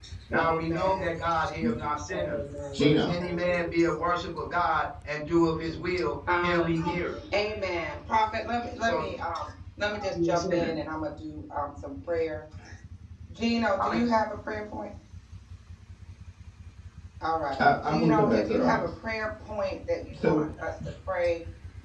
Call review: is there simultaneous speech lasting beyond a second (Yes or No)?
Yes